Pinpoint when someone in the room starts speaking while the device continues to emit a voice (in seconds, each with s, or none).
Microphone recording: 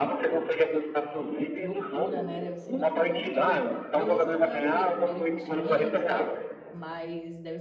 1.5 s